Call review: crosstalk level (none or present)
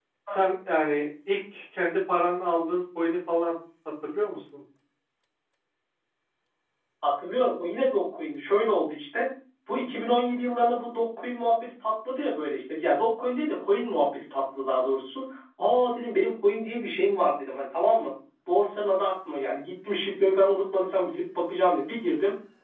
none